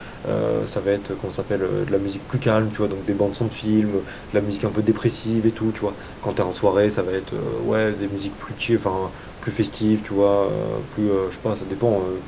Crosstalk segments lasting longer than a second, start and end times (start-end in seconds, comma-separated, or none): none